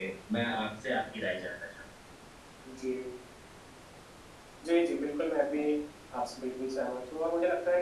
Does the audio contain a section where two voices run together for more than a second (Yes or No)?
No